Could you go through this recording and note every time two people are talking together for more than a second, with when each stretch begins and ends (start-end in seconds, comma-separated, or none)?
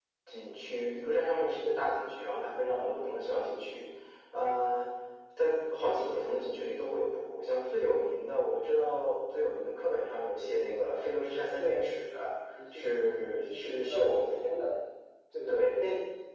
12.7-14.7